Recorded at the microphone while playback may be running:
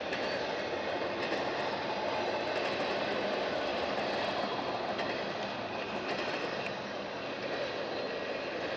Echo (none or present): none